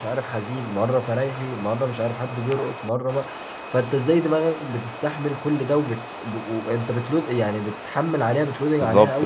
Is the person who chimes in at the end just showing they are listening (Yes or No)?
No